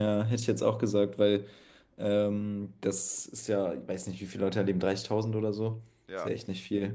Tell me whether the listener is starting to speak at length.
No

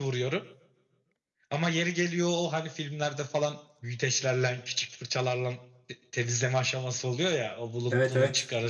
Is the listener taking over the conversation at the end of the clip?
No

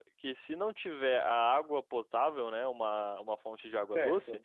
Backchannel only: Yes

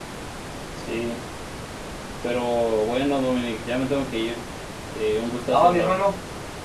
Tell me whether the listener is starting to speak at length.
Yes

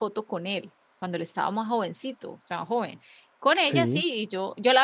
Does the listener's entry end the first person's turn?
No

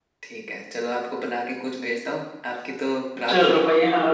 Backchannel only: No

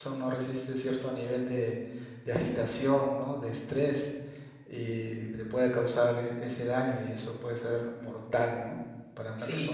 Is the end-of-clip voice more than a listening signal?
Yes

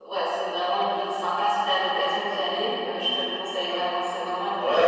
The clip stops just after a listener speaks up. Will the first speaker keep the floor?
No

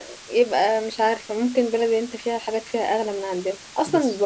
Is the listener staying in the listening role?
Yes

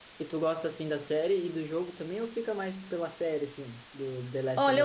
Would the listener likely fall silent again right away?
No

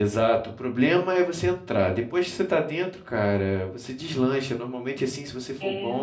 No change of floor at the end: Yes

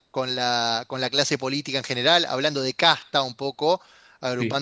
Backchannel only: Yes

